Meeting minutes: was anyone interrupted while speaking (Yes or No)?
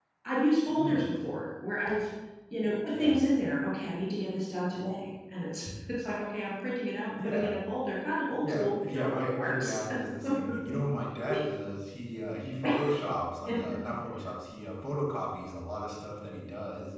Yes